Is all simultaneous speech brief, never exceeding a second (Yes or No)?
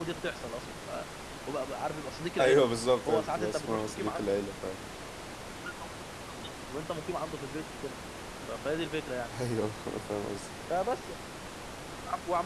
No